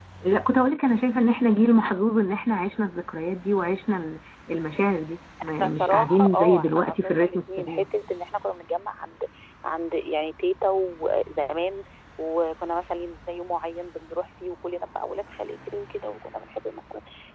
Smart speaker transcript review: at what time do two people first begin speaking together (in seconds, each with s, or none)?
5.4 s